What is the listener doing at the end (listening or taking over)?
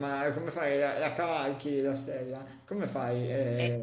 taking over